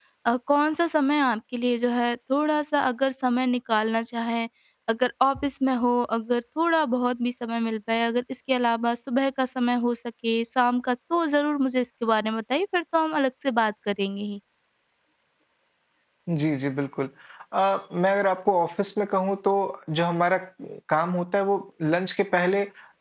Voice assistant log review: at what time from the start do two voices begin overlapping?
none

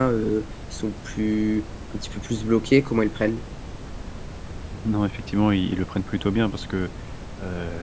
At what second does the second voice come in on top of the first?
none

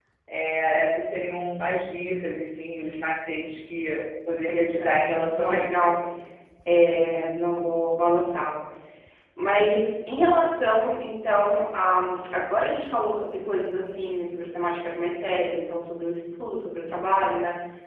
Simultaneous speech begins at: 4.4 s

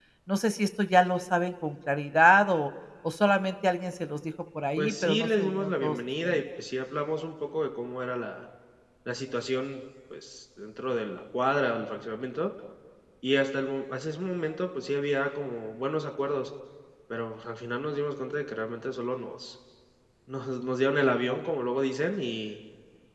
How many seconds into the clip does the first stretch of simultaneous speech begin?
4.8 s

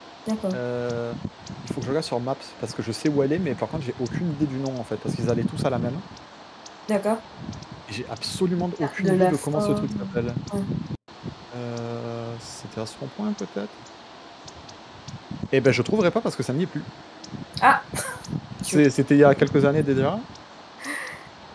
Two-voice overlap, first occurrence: 8.8 s

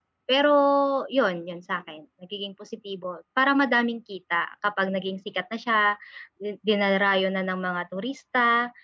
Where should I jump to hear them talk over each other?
none

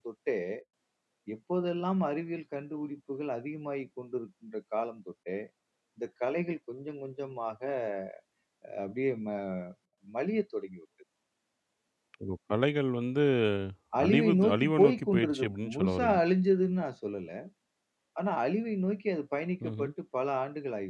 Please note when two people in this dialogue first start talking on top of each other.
14.0 s

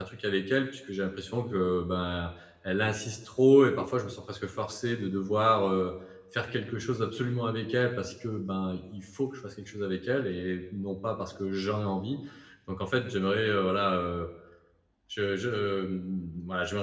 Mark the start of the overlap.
none

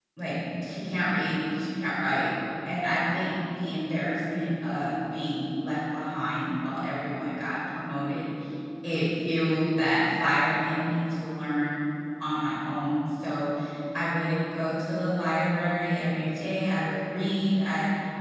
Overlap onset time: none

